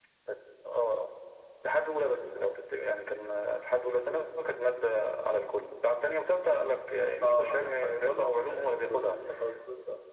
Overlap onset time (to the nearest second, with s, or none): 7 s